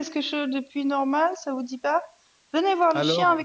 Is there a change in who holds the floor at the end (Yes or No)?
No